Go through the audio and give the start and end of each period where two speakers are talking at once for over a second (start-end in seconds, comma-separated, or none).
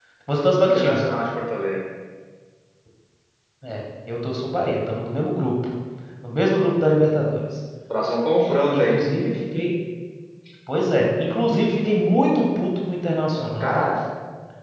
none